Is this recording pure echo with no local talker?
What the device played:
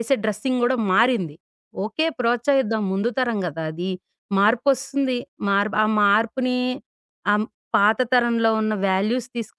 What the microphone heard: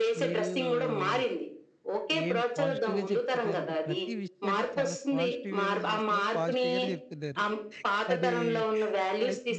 No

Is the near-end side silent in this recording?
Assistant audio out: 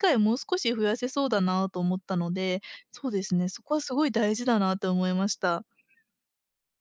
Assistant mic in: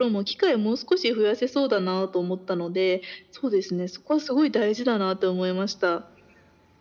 Yes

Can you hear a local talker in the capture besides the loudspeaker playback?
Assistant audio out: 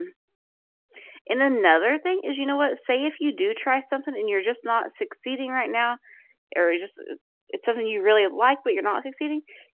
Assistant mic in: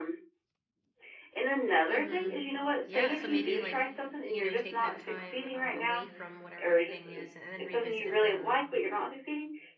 Yes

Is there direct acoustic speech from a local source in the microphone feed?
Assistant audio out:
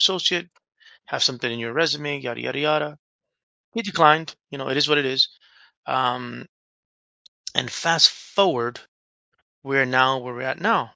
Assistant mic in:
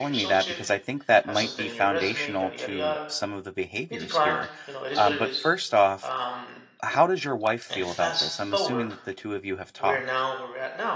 Yes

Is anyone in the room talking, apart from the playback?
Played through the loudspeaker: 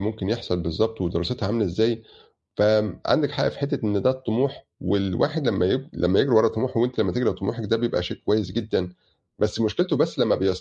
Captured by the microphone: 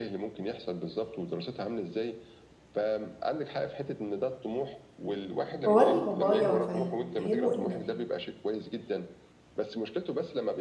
Yes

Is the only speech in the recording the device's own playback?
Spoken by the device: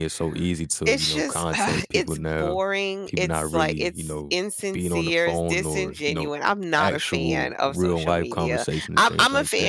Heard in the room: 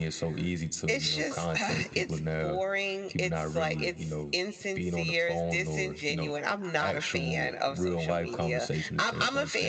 Yes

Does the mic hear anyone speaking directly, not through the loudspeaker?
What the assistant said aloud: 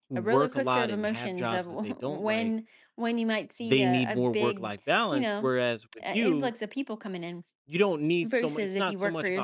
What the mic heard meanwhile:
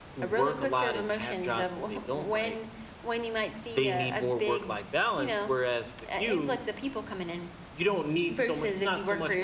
No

